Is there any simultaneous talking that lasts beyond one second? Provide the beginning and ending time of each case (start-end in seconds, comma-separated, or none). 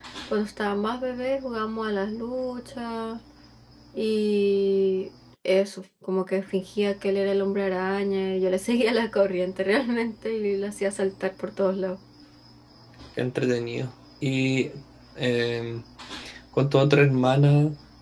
none